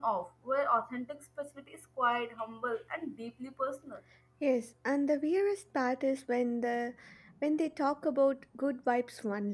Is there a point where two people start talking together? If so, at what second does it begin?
none

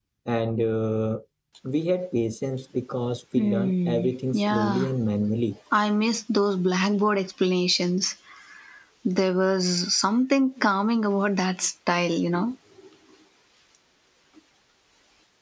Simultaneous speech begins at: 3.4 s

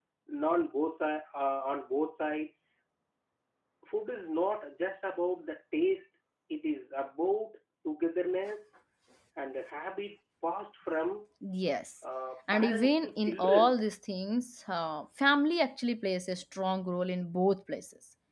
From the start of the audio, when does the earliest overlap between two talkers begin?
12.5 s

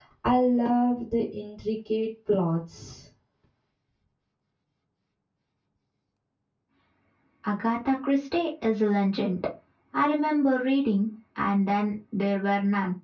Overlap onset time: none

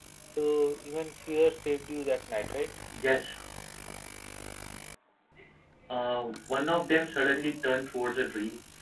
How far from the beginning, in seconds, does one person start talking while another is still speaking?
none

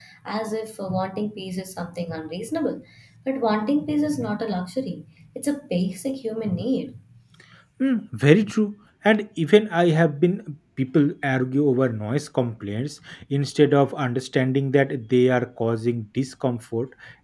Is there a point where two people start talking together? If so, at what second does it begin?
none

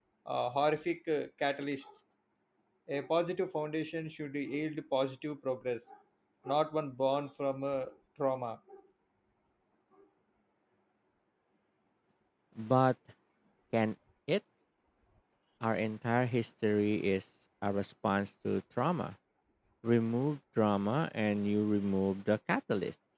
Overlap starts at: none

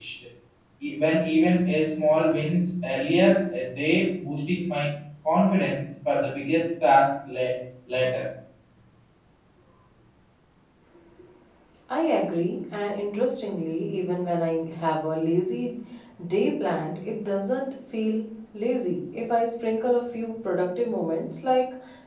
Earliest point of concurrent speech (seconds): none

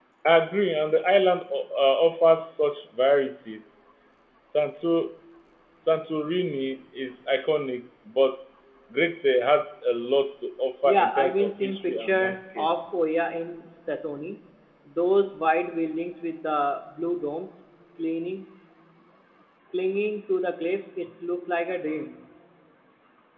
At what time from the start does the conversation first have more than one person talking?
10.8 s

